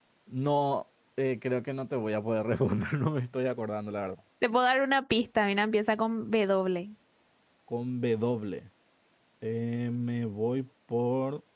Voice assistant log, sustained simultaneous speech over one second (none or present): none